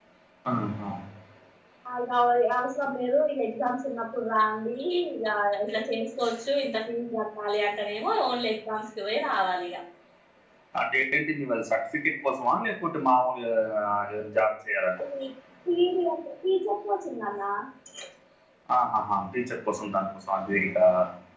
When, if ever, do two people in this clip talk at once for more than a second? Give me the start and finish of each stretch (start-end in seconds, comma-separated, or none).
none